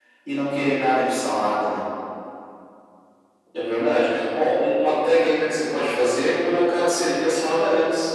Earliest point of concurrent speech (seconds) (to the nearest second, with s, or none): none